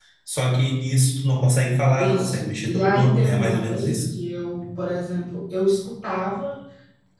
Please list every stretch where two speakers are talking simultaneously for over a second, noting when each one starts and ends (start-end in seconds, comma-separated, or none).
2.0-4.0